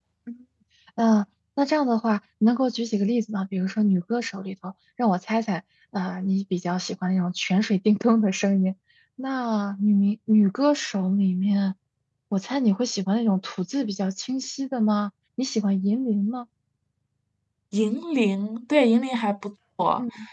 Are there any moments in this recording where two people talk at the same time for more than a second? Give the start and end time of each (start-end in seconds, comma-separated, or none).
none